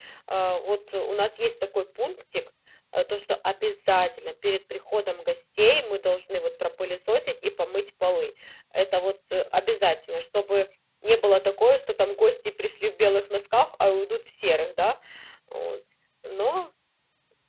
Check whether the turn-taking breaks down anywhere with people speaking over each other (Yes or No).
No